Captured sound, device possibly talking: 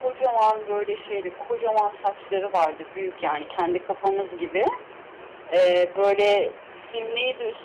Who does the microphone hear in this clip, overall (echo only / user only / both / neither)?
echo only